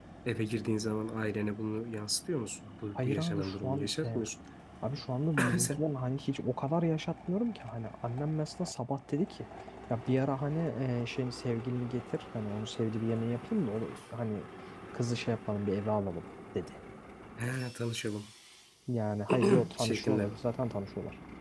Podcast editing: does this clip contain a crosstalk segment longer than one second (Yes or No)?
Yes